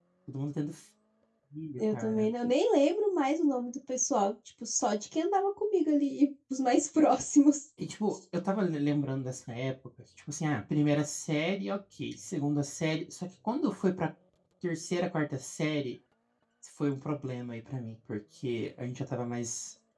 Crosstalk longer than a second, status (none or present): none